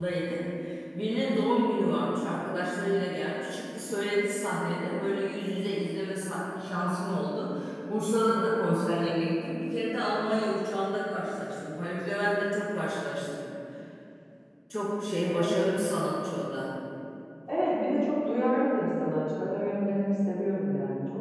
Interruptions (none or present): none